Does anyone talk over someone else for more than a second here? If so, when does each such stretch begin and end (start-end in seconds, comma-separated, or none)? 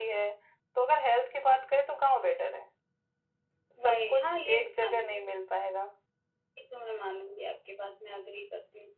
3.8-5.2